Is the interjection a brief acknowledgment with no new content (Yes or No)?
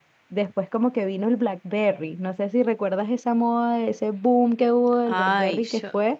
No